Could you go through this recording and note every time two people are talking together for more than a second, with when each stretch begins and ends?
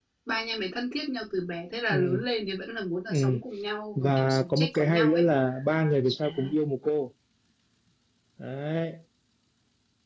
4.0-5.2

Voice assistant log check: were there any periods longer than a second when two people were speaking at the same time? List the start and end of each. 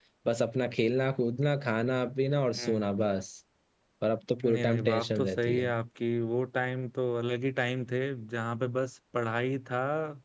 4.4-5.7

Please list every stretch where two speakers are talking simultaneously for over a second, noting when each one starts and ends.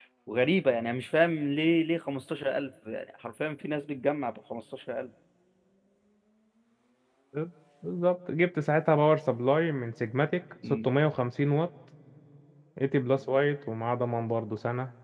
none

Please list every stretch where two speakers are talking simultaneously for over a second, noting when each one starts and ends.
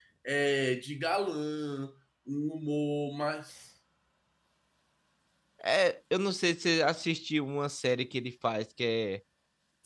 none

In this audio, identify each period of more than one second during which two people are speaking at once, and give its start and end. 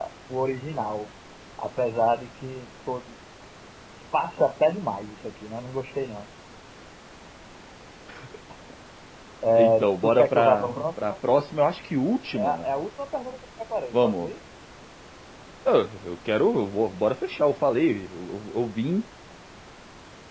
9.6-11.0

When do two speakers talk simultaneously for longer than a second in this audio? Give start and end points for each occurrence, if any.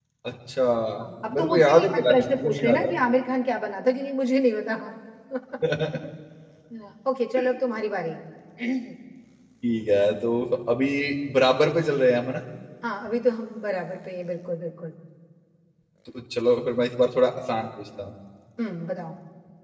1.3-2.8

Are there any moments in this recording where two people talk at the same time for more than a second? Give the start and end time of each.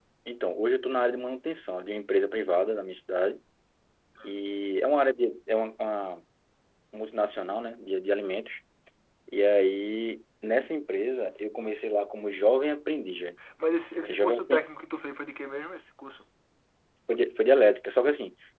none

